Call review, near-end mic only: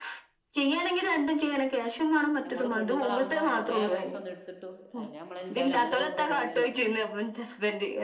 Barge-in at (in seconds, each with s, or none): 2.4 s